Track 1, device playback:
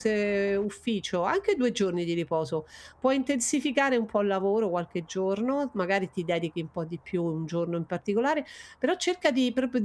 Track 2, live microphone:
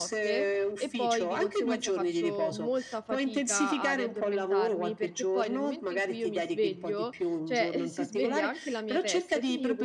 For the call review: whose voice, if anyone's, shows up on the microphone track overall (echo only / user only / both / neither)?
both